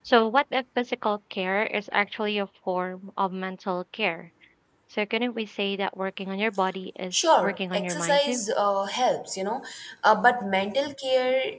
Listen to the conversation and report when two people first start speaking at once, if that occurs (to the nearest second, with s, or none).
7 s